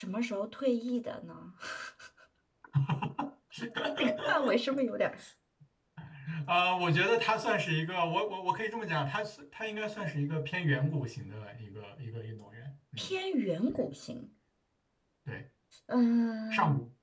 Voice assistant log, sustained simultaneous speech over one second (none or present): none